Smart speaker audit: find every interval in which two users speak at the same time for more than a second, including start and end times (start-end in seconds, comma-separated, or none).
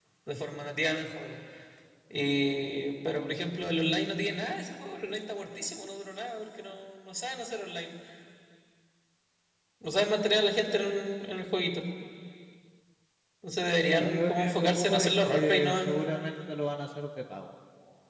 14.0-15.9